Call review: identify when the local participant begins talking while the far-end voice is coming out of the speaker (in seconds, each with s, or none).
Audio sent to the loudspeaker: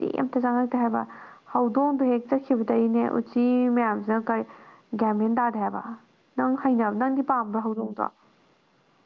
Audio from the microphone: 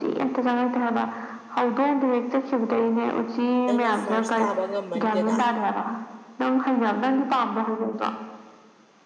3.7 s